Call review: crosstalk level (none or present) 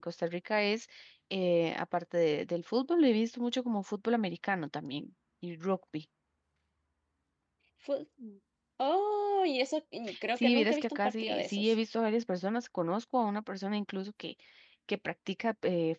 present